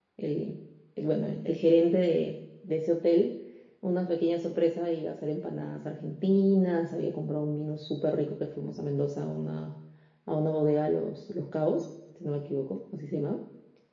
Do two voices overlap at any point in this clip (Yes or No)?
No